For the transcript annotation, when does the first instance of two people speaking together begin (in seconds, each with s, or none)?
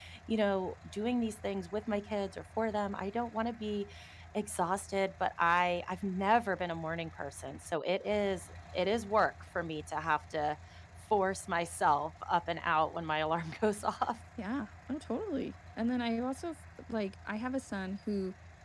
none